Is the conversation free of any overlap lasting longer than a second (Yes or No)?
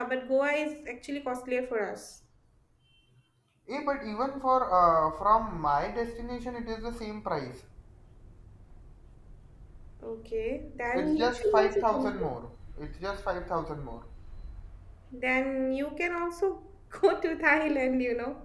No